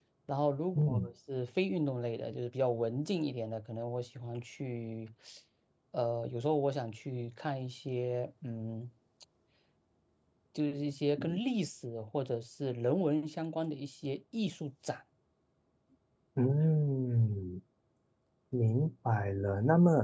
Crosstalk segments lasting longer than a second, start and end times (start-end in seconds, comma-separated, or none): none